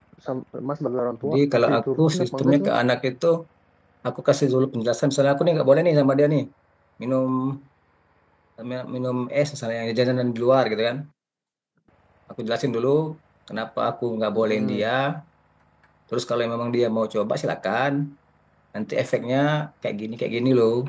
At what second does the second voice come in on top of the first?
1.2 s

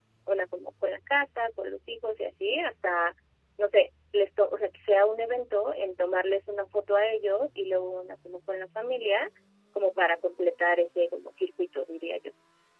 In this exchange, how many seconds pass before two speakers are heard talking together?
none

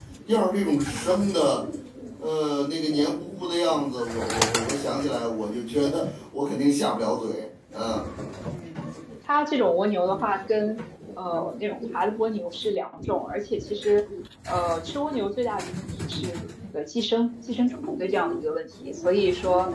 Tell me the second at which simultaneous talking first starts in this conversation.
none

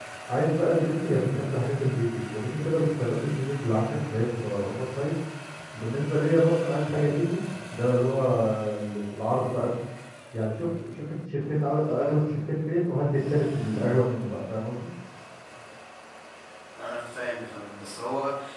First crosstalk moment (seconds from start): none

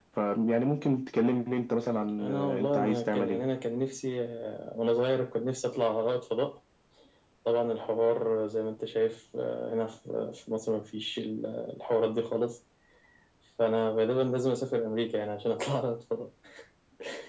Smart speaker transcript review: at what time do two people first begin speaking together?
2.2 s

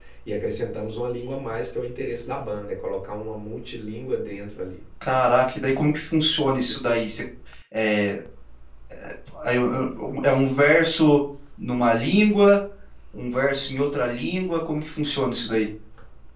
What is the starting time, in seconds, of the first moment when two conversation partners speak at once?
none

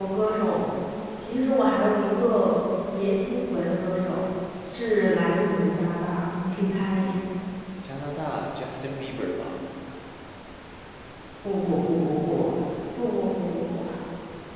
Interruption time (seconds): none

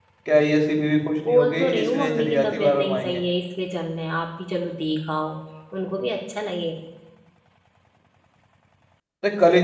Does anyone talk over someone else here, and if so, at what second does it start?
1.2 s

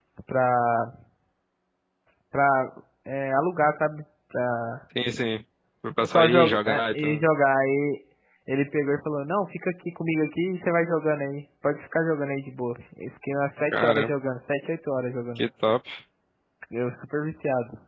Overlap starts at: 6.0 s

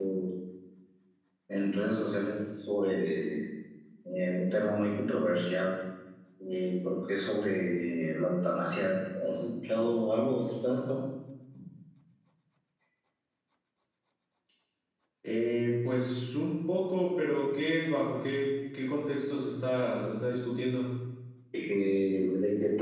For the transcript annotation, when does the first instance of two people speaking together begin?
none

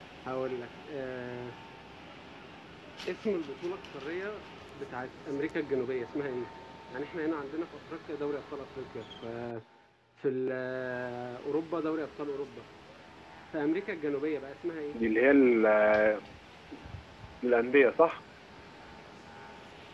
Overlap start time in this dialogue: none

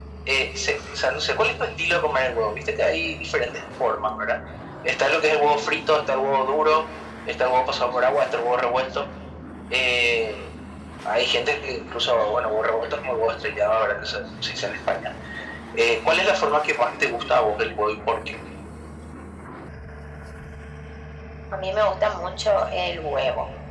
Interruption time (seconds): none

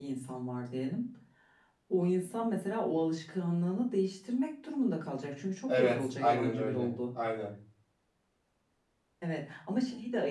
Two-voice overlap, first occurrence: 5.7 s

